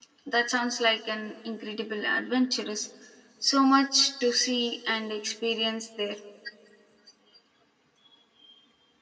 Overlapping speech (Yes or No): No